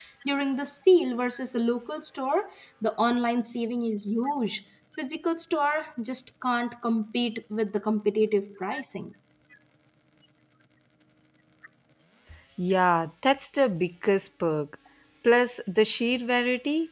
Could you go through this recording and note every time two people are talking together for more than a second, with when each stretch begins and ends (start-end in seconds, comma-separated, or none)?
none